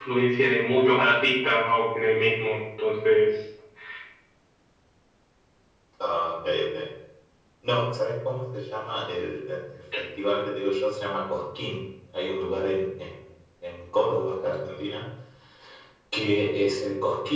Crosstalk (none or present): none